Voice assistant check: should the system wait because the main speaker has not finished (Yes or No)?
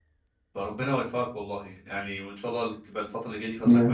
Yes